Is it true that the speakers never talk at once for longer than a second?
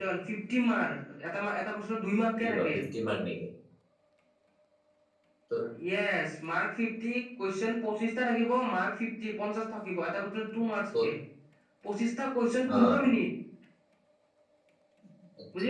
Yes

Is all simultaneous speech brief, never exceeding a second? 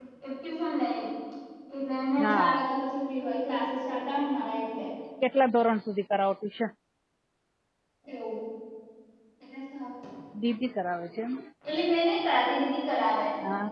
Yes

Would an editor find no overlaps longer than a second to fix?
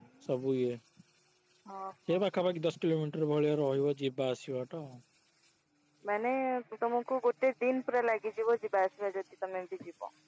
Yes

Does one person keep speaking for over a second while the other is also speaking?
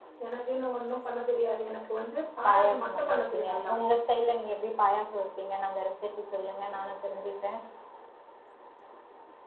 Yes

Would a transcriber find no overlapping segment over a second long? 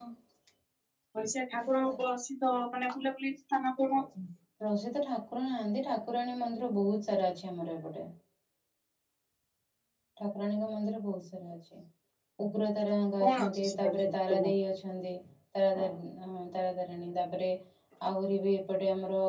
No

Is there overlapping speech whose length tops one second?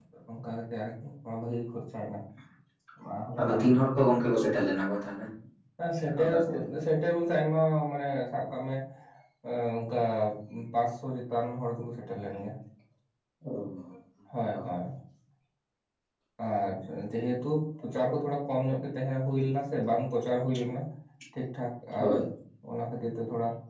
No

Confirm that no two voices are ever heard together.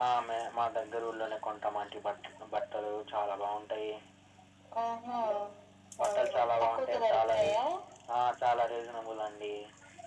No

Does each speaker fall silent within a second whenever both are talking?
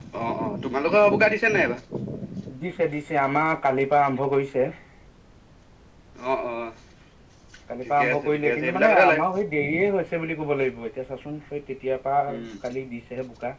No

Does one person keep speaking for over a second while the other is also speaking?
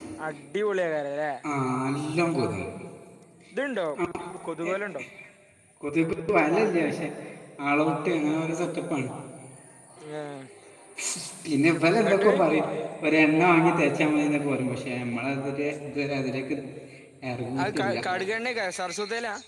No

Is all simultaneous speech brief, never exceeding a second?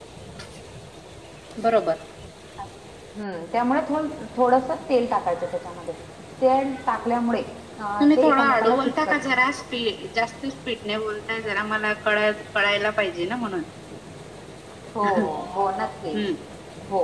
No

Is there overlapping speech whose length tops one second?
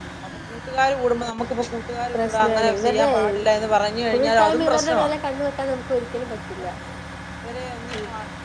Yes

